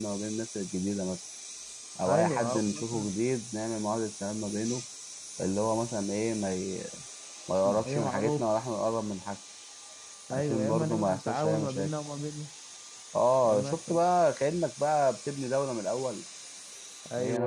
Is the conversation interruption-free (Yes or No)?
No